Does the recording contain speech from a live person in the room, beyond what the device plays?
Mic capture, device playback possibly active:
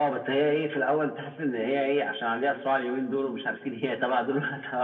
No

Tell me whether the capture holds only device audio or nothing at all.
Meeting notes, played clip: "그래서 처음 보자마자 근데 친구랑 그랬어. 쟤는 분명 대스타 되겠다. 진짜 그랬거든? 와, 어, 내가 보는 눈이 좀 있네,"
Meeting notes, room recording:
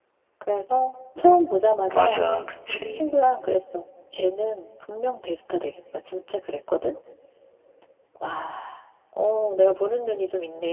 No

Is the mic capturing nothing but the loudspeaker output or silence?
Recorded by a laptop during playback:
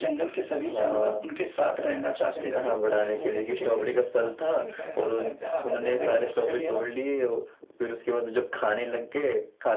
No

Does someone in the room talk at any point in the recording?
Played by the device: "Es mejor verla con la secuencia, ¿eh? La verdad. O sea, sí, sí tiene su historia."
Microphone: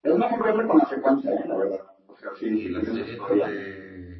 Yes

